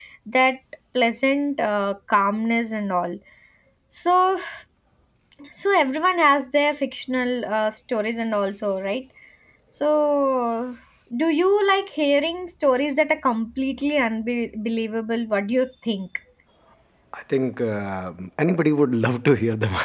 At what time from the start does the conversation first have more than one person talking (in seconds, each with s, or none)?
none